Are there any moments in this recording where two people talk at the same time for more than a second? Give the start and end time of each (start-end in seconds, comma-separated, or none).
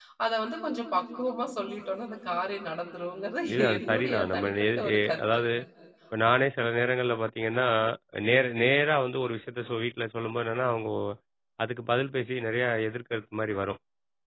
3.5-5.4